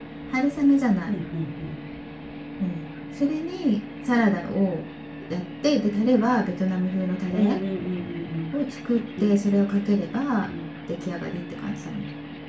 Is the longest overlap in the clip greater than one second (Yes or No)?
No